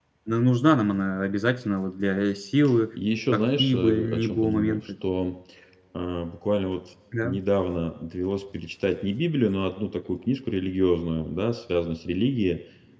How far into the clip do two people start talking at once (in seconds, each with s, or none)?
3.3 s